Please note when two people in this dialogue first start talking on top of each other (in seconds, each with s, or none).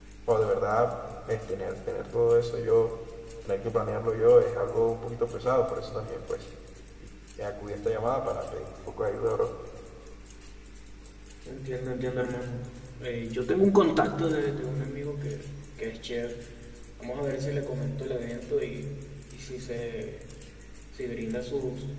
none